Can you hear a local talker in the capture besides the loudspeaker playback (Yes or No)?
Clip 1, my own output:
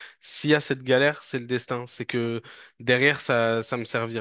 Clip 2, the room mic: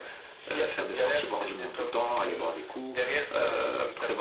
Yes